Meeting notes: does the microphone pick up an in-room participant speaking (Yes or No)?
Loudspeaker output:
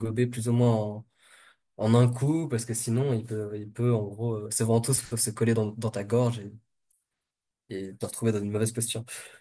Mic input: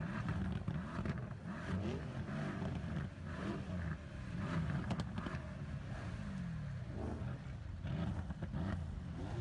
No